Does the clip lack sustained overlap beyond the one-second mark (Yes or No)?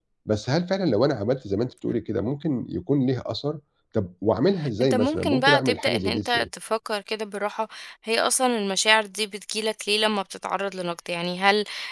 No